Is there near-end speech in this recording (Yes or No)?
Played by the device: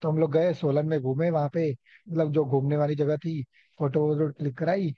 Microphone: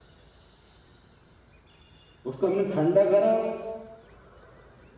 Yes